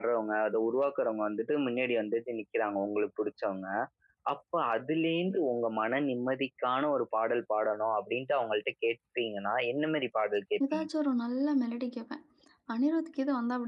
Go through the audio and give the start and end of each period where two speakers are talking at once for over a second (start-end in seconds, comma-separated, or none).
none